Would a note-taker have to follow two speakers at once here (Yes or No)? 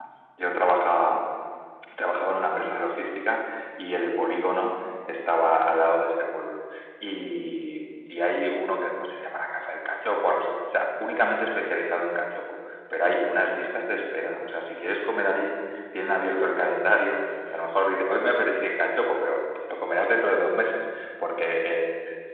No